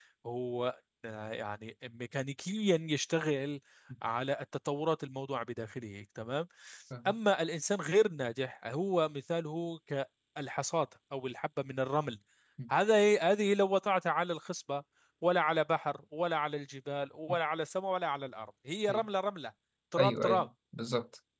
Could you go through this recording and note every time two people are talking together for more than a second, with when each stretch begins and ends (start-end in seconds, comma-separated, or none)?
none